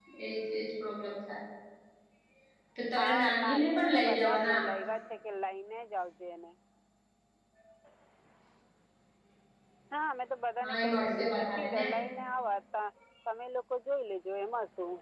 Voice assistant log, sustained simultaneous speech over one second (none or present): present